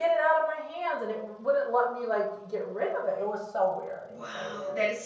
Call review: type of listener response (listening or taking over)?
taking over